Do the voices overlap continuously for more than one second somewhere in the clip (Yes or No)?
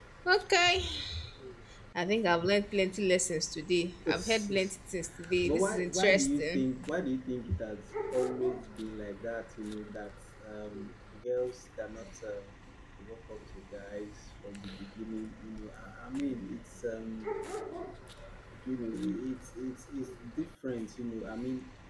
Yes